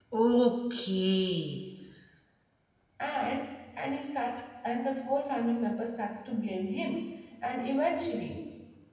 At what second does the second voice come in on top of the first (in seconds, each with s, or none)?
none